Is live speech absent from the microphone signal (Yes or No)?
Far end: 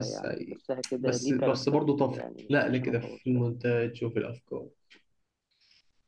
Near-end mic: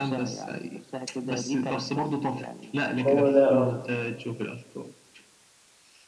No